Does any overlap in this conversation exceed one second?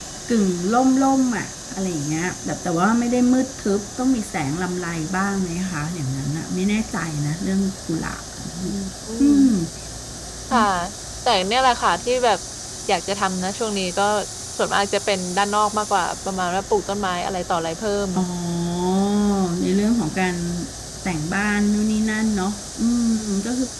No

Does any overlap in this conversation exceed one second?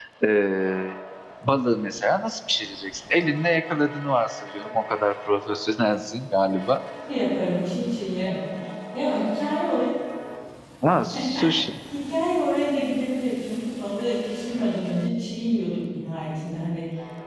No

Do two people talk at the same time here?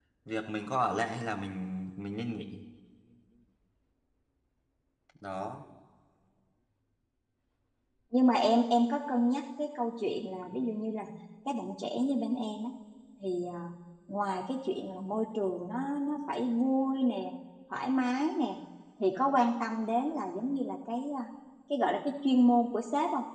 No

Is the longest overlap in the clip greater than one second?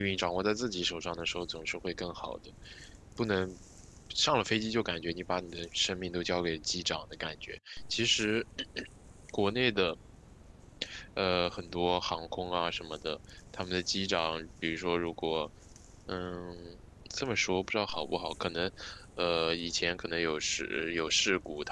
No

